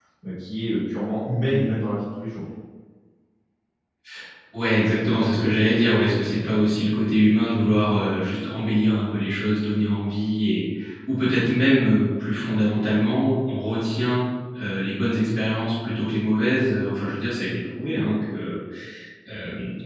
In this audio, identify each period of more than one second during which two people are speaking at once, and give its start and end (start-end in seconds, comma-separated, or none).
none